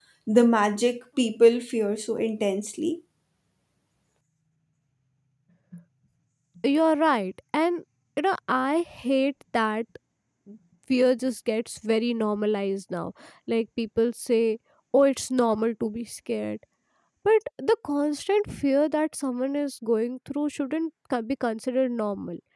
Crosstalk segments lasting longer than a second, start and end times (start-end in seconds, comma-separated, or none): none